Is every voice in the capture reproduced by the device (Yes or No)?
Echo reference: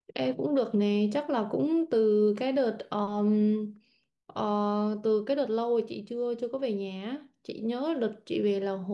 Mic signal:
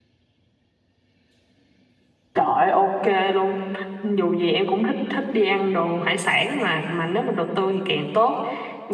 No